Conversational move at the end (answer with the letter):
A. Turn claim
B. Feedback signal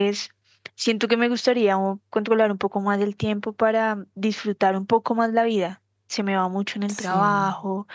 B